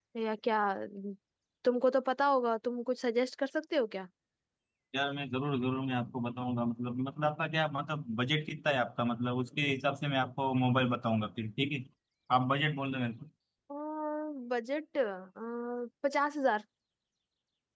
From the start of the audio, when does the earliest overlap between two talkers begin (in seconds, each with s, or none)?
none